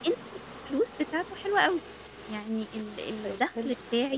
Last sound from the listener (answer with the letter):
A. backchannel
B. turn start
A